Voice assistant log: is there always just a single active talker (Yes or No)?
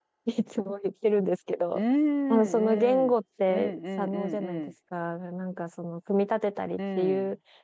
No